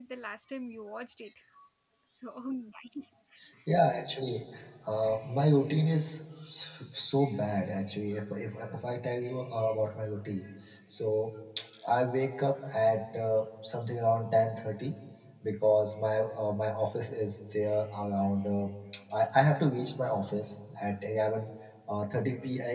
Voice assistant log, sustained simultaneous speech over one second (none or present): none